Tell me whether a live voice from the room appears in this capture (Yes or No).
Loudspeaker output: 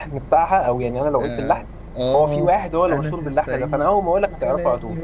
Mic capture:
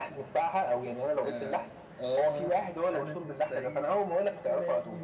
No